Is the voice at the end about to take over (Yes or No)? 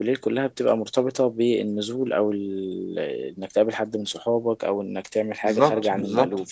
Yes